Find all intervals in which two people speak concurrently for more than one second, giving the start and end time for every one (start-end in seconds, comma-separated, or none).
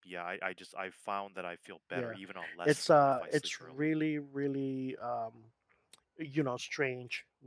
2.6-3.9